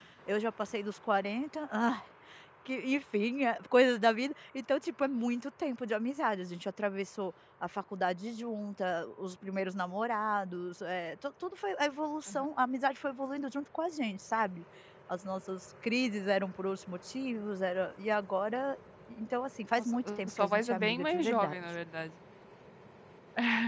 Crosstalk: present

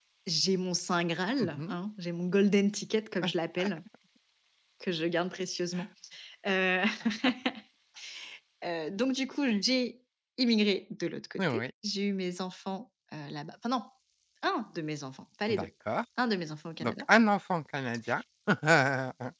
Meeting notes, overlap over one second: none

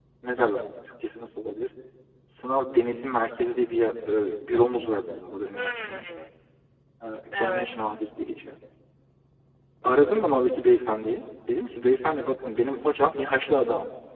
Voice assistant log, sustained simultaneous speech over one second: none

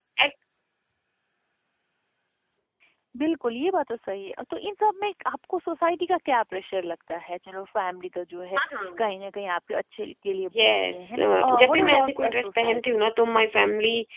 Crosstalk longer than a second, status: present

